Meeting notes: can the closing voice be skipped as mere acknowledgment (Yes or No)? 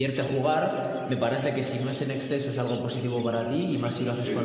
Yes